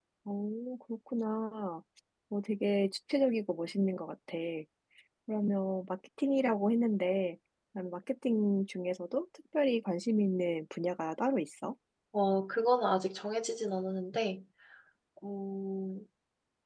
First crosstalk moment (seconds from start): none

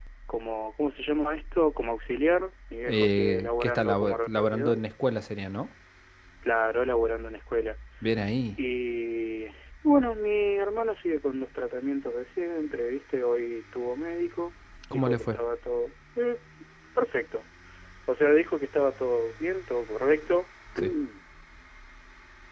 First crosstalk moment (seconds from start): 2.9 s

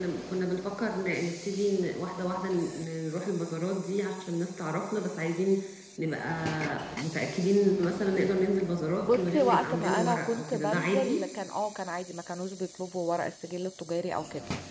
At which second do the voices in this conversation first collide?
9.0 s

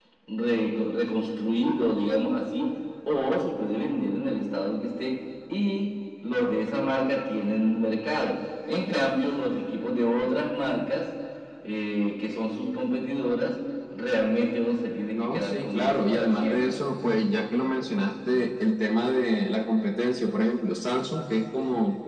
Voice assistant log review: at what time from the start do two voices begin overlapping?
15.1 s

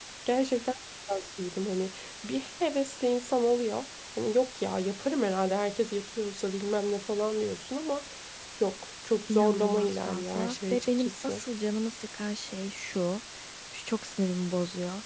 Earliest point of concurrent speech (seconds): 9.3 s

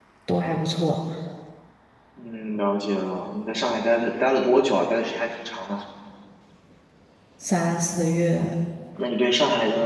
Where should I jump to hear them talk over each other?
none

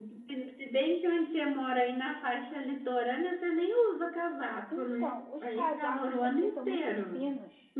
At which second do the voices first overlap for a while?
4.7 s

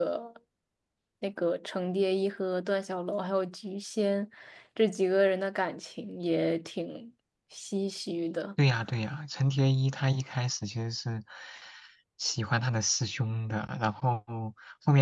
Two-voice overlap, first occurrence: none

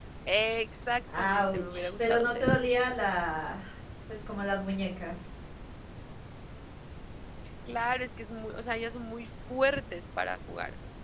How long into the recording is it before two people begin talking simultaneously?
1.2 s

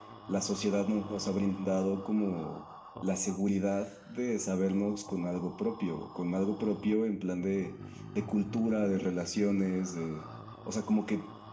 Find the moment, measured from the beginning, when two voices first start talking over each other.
none

